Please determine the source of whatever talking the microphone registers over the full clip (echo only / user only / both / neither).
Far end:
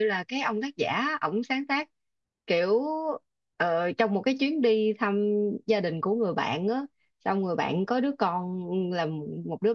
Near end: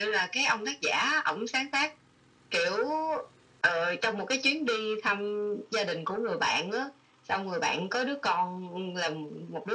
echo only